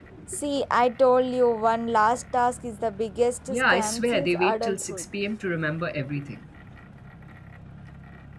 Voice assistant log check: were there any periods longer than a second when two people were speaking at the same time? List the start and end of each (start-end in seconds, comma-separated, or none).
3.5-5.0